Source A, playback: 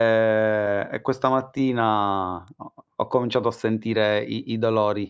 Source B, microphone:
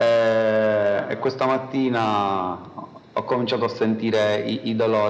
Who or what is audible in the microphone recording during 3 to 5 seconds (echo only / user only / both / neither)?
echo only